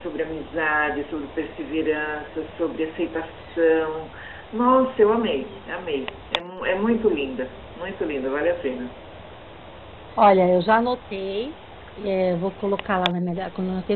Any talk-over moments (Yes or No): No